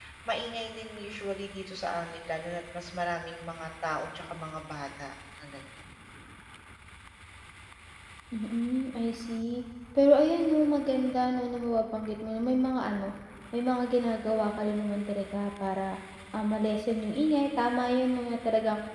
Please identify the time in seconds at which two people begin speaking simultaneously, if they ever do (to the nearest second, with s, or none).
none